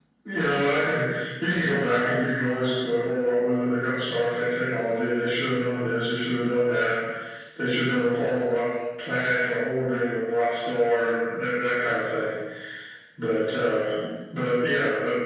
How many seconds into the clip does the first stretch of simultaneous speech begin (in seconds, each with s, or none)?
none